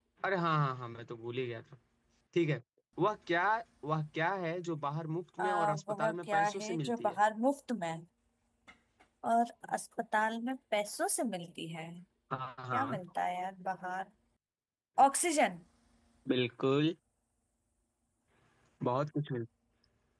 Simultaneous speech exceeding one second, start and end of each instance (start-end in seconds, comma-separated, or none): 5.4-7.2